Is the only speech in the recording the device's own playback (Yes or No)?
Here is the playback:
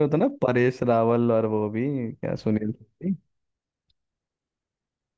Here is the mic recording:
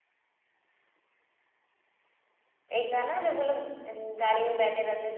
No